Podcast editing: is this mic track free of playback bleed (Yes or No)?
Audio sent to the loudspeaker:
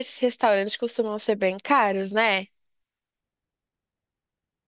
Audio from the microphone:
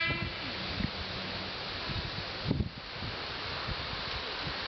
Yes